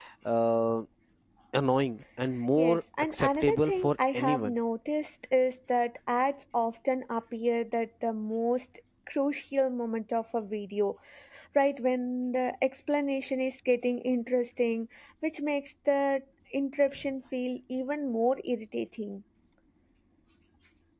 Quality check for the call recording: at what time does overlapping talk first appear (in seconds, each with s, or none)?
2.6 s